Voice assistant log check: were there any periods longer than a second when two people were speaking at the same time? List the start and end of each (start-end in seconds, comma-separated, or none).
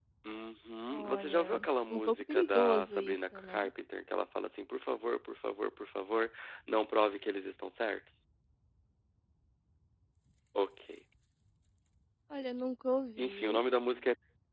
0.9-3.7